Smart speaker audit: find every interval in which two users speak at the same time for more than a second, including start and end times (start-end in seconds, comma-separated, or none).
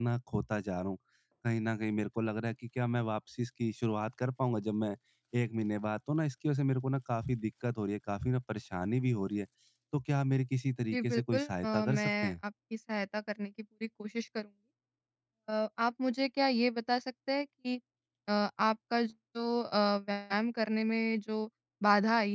10.9-12.3